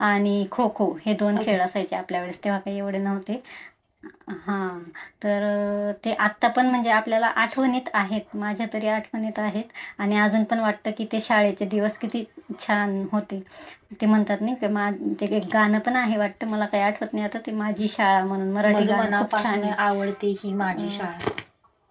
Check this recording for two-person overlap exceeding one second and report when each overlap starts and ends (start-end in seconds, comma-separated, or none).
18.7-20.1